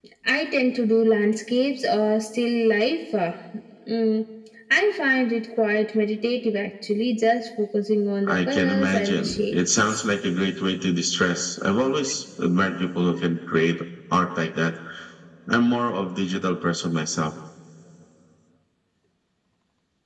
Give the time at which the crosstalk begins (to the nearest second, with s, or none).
8 s